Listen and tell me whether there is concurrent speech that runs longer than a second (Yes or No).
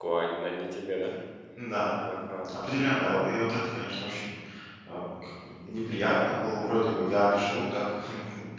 No